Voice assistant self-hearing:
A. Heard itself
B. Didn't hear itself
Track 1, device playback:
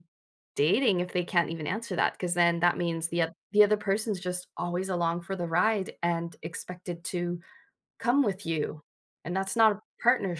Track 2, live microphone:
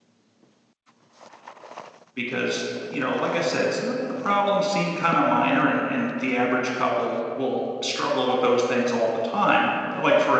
B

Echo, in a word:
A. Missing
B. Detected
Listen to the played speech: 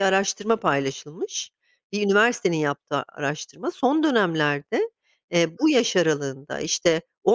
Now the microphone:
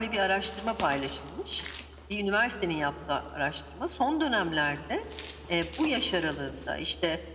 B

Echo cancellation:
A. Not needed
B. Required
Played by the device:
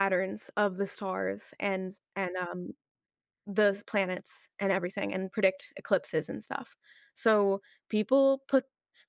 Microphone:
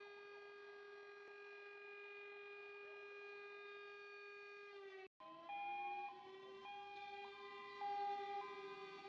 A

